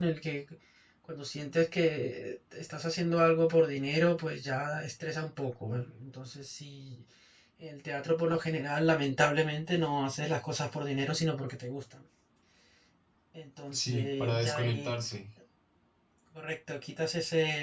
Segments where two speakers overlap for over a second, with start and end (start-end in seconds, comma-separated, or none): 13.7-14.9